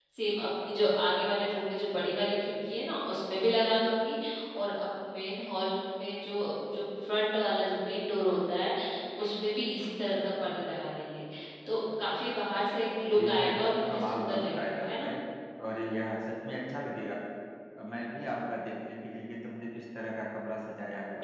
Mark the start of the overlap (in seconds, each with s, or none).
13.2 s